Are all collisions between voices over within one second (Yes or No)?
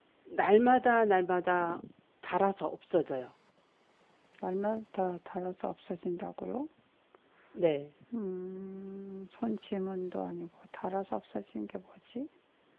Yes